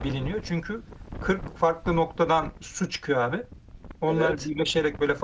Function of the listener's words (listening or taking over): listening